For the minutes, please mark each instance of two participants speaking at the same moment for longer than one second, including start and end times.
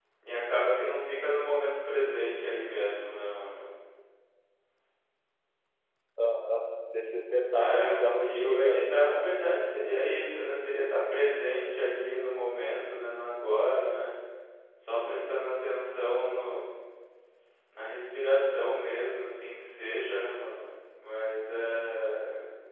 7.5-8.8

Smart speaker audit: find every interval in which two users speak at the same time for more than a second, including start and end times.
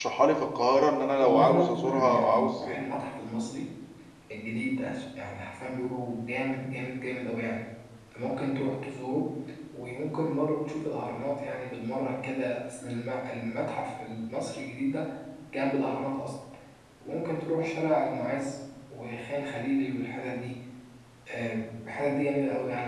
1.2-2.7

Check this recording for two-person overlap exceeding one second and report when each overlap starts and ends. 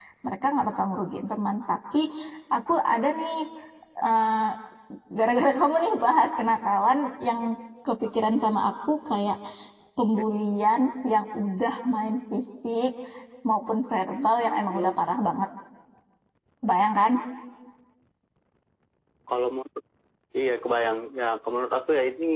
none

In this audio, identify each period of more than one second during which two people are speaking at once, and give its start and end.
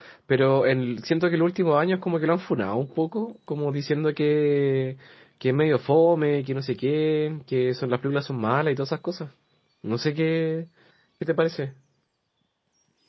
none

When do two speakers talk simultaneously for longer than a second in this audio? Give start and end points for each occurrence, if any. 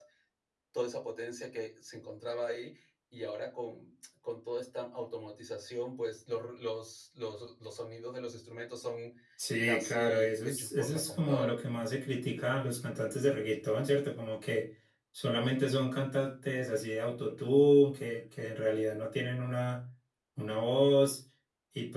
9.6-11.6

